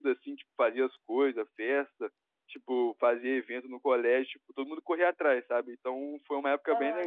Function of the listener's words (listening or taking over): listening